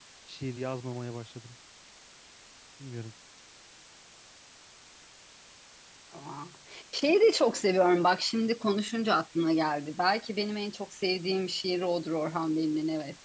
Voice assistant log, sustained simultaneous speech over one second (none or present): none